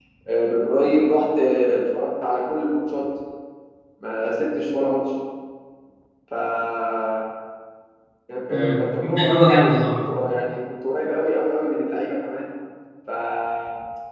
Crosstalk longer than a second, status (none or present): present